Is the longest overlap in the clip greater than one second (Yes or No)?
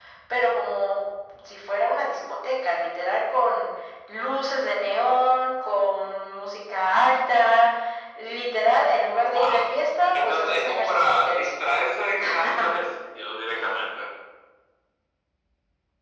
Yes